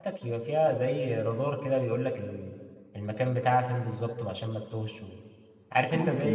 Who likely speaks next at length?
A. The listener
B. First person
B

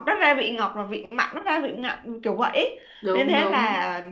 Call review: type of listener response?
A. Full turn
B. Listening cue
B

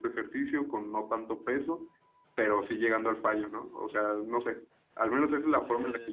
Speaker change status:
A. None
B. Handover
A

